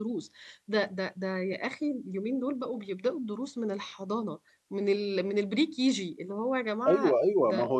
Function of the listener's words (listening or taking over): taking over